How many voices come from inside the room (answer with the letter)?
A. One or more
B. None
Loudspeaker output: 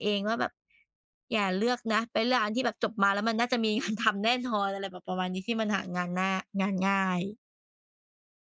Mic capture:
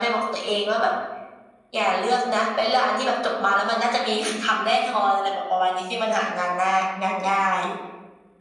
B